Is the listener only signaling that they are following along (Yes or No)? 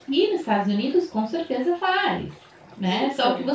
Yes